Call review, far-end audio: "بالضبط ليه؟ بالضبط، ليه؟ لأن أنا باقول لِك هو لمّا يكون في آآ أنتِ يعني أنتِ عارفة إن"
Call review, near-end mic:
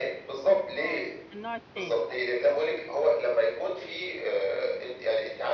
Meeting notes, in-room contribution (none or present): present